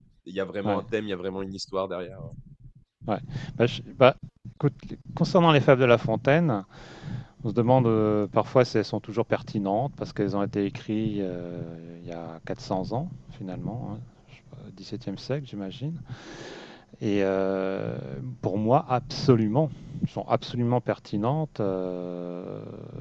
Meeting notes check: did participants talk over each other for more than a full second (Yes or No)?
No